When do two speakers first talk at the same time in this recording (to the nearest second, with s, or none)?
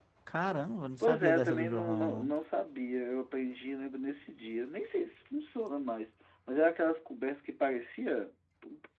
1 s